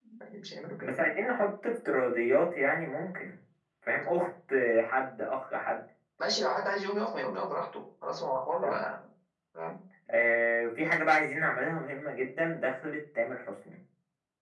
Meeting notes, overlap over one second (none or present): none